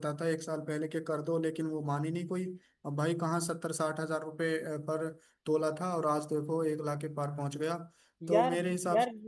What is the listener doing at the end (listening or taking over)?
taking over